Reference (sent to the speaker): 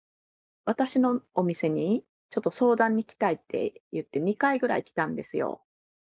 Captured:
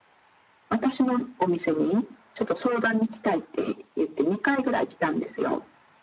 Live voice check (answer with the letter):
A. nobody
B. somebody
A